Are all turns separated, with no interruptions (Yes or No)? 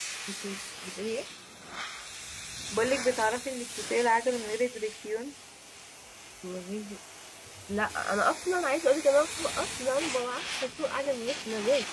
Yes